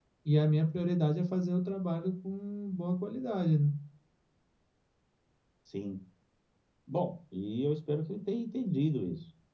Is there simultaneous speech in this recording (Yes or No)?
No